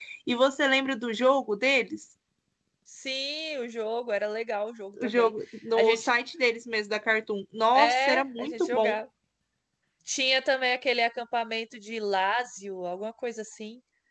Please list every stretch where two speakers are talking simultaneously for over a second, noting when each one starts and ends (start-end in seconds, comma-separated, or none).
7.8-8.9